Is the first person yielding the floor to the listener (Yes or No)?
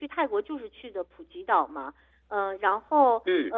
No